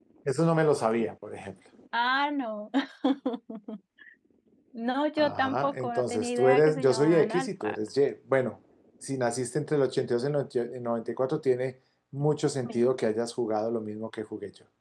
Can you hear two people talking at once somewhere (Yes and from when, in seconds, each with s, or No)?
Yes, from 5.2 s